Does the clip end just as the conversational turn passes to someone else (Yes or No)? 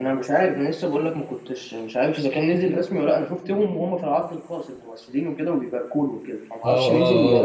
Yes